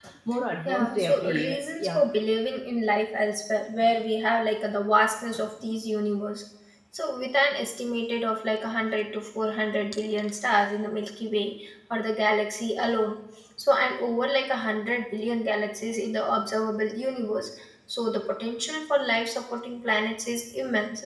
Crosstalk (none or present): present